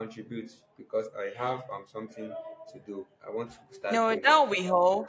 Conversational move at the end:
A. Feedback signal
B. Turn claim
B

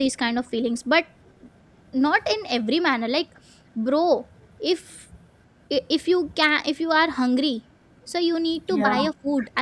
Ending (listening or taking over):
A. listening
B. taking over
A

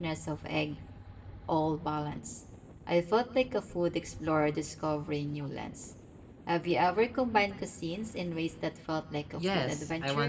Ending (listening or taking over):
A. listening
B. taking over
B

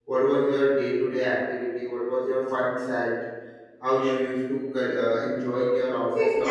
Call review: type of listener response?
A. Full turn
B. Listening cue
A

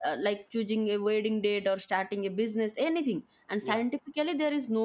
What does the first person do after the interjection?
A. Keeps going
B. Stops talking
A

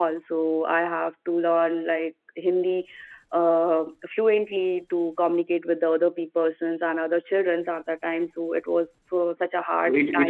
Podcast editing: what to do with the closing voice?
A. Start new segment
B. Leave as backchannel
A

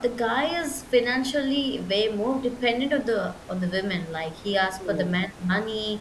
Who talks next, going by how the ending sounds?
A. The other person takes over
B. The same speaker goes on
B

